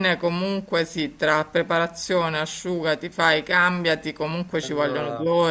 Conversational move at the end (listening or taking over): listening